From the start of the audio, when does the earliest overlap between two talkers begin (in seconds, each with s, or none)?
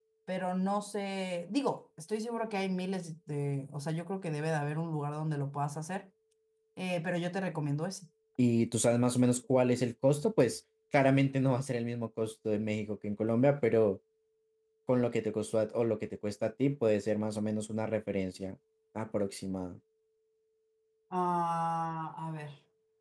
none